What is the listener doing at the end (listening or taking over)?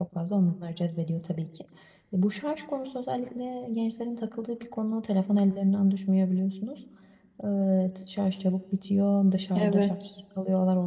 listening